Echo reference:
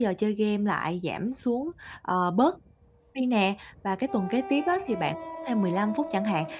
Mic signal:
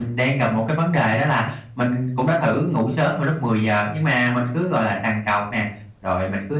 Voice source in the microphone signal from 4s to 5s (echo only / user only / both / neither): user only